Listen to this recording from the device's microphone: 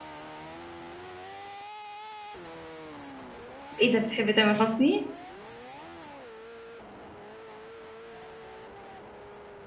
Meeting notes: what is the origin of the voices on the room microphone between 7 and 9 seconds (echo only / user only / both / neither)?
neither